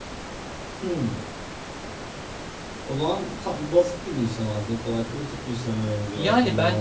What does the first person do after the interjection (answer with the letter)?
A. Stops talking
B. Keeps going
A